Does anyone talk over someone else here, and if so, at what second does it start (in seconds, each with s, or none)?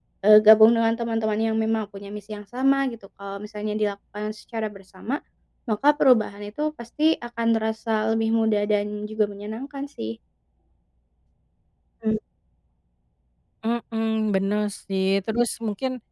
none